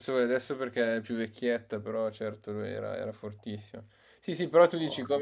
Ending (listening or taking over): listening